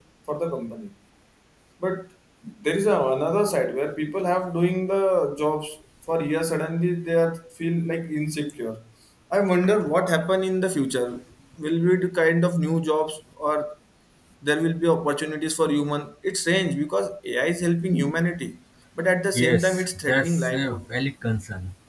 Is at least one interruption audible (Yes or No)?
Yes